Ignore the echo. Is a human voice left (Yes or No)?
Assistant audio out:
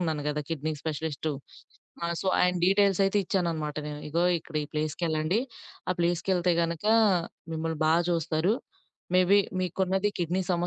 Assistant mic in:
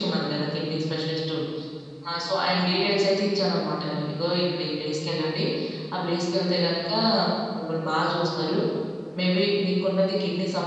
No